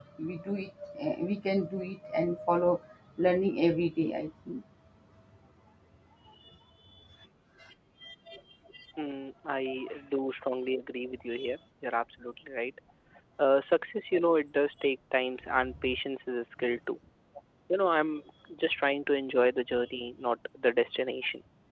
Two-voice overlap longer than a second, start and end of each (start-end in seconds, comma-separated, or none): none